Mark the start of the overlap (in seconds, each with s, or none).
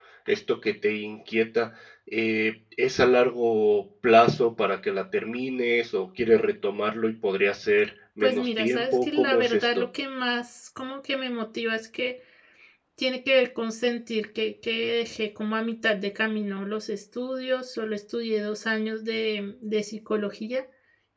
8.2 s